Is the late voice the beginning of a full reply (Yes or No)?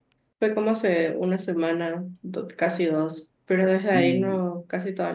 No